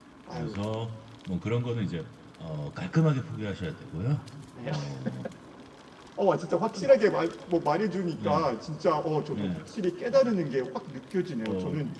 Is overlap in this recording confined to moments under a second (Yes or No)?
Yes